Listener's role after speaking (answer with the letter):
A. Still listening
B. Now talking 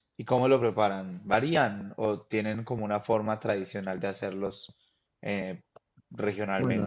B